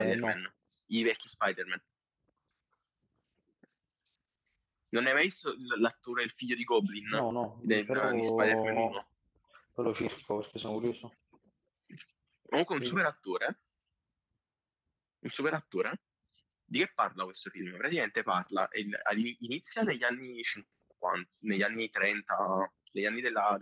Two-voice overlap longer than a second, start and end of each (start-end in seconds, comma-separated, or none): 7.6-9.0